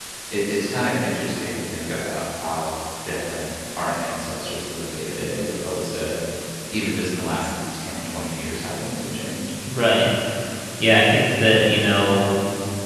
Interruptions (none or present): none